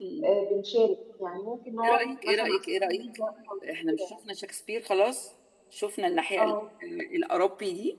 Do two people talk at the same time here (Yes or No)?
Yes